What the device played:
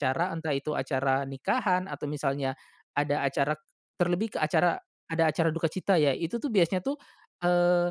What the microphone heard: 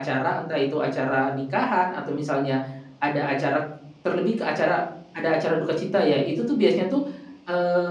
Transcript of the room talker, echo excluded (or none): none